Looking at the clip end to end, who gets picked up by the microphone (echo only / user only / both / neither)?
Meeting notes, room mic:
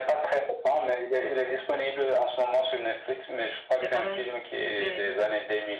both